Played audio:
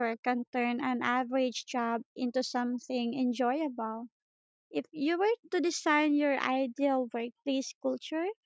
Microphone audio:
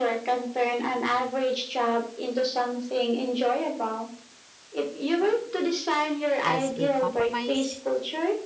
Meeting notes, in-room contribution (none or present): present